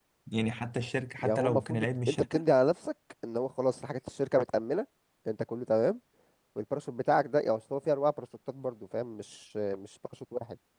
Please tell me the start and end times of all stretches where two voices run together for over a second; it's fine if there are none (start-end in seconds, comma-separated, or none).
1.2-2.4